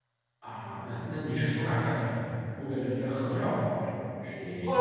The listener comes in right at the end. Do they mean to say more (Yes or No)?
Yes